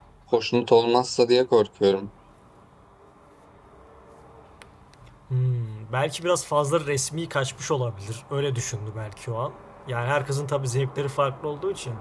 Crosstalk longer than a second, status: none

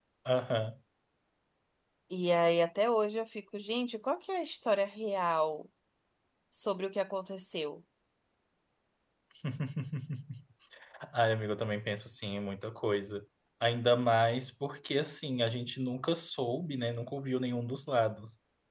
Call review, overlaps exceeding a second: none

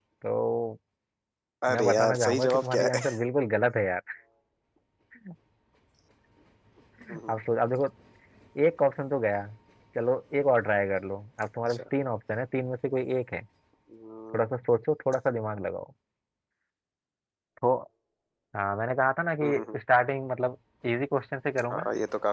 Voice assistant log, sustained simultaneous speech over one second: present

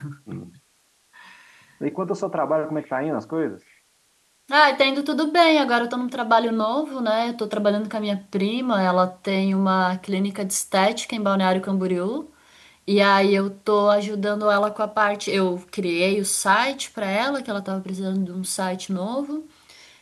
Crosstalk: none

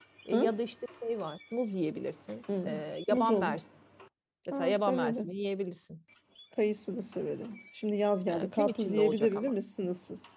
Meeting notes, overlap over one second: present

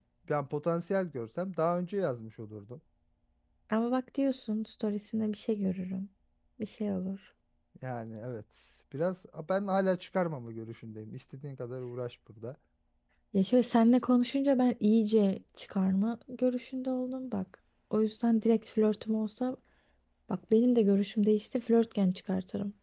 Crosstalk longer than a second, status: none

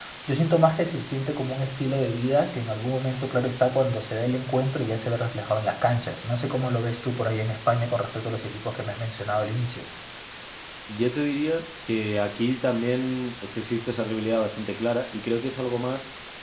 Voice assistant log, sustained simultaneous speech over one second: none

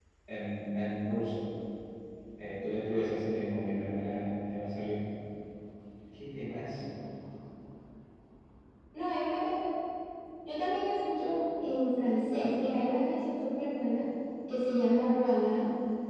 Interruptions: none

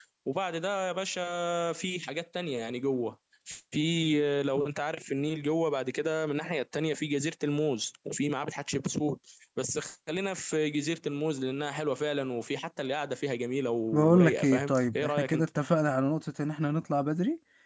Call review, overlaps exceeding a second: present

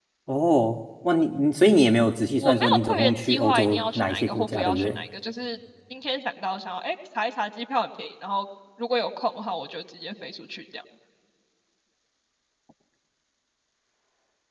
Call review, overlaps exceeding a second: present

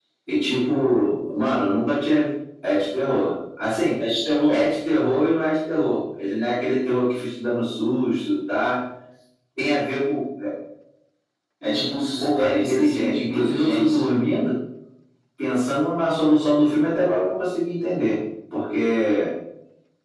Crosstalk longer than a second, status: present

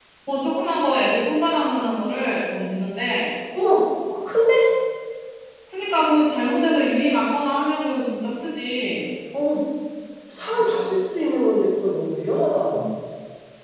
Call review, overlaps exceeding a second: none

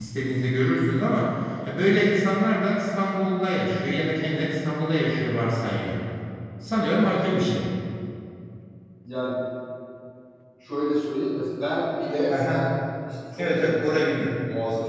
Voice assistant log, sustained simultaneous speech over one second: none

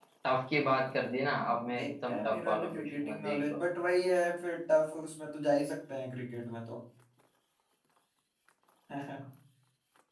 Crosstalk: present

